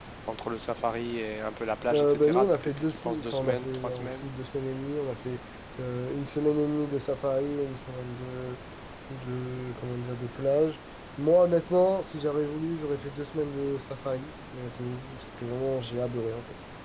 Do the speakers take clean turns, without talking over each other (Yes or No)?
No